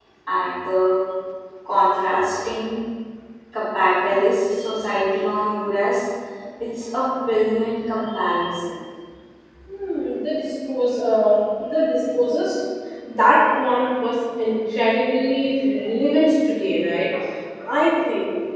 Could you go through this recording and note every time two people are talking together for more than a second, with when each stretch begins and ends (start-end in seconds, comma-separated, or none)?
none